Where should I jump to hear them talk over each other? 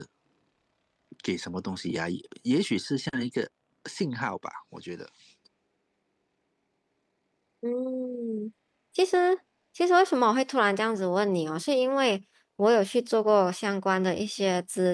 none

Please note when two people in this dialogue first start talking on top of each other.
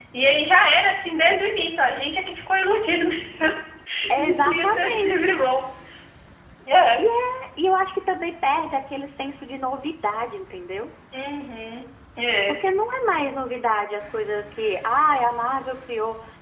4.2 s

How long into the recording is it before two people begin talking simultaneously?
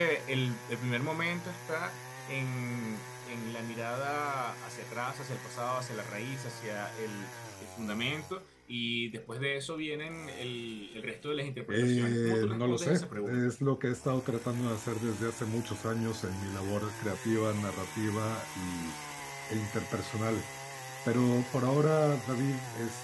11.7 s

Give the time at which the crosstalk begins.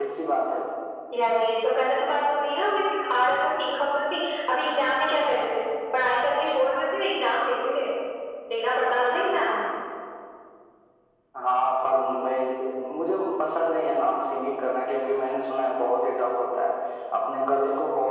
none

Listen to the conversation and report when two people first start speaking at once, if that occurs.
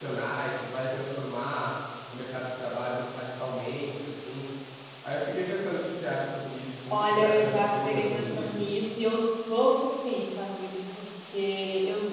6.9 s

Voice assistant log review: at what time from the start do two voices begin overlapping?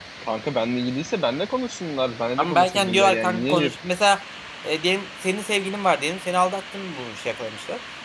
2.4 s

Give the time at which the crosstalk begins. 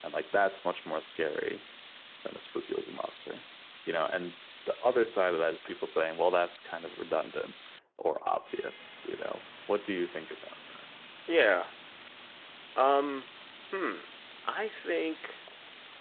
none

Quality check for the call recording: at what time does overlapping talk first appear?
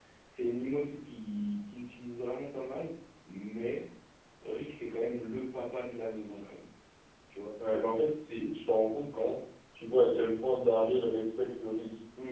none

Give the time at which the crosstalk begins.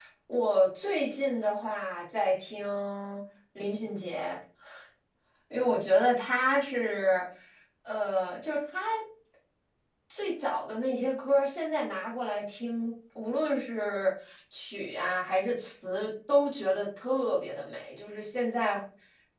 none

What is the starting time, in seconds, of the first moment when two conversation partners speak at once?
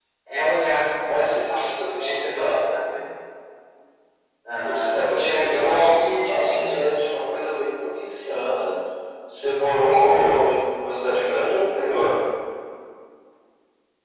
1.0 s

